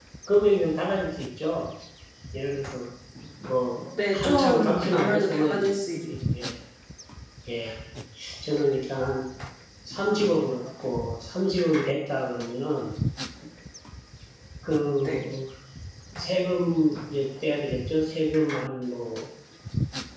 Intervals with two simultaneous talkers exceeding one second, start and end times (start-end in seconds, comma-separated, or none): 4.1-5.7